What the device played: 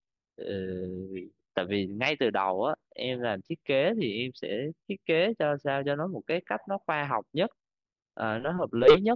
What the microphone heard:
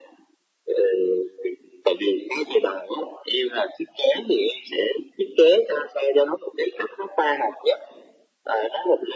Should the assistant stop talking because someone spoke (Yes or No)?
No